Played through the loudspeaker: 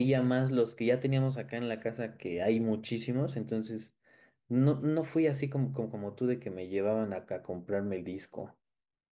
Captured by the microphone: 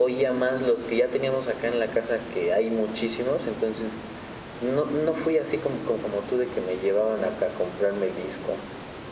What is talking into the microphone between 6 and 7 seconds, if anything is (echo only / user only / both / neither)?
echo only